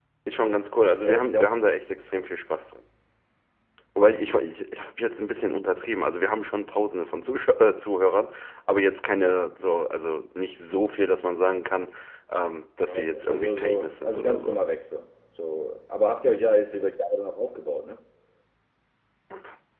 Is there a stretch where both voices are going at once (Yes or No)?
Yes